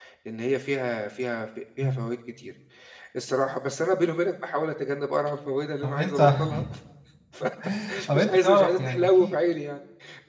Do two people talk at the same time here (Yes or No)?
Yes